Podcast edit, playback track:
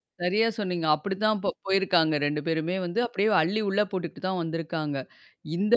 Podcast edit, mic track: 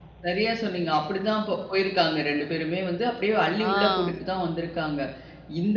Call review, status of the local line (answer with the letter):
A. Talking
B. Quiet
A